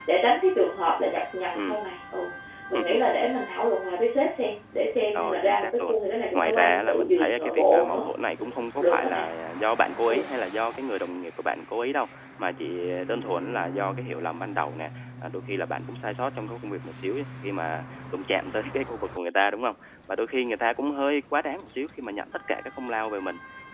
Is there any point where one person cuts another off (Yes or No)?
Yes